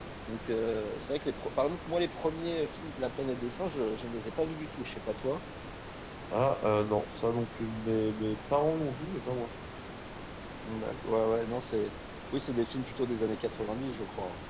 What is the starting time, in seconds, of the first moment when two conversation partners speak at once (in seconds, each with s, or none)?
none